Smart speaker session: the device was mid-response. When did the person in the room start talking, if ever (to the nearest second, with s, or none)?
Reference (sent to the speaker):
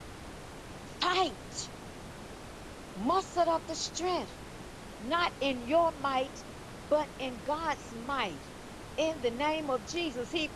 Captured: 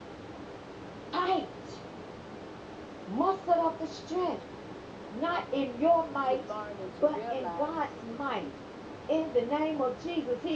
6 s